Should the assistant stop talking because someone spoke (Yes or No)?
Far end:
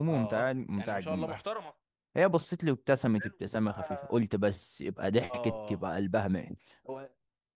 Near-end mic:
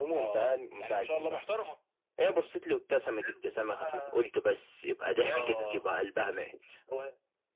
Yes